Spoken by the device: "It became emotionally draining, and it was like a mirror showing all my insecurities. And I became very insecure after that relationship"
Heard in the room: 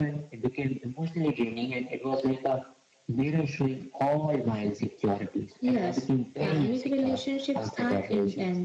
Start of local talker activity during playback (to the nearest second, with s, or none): 6 s